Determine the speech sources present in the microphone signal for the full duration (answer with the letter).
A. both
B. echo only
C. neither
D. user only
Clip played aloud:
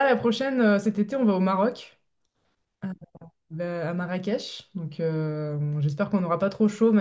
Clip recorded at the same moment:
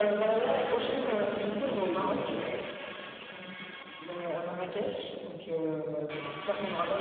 A